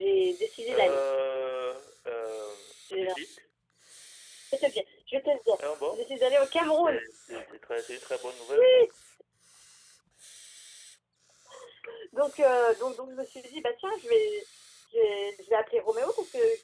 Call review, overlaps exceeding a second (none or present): none